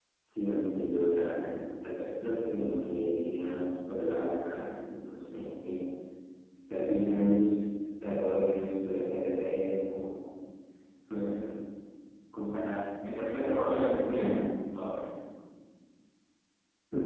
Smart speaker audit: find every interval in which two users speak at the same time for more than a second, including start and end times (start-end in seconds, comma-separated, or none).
13.0-14.3